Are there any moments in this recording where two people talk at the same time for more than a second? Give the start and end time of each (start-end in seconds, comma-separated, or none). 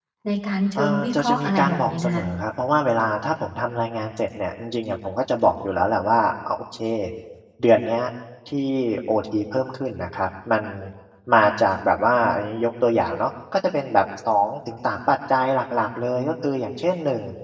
0.8-2.2